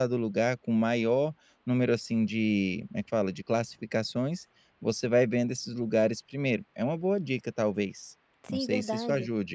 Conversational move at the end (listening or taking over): taking over